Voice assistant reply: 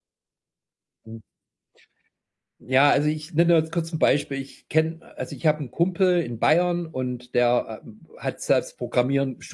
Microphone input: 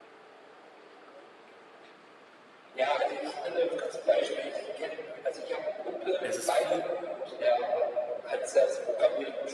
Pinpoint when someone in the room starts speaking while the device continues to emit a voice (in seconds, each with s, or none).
6.2 s